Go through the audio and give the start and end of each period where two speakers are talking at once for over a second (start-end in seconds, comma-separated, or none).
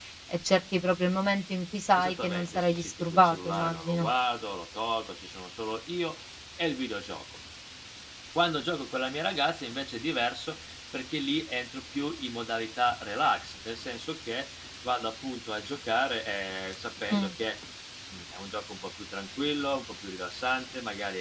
1.9-4.1